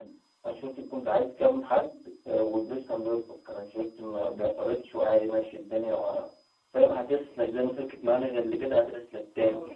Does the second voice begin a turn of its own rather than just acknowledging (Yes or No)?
No